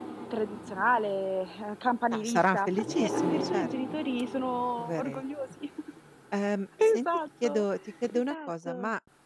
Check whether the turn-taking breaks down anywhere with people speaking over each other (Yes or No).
Yes